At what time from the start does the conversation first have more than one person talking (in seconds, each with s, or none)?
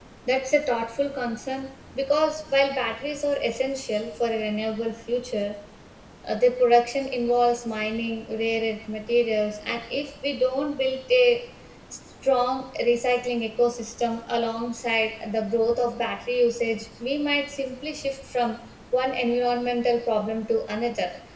none